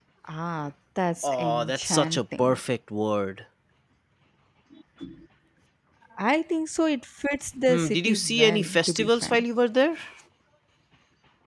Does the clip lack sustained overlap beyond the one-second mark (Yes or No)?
No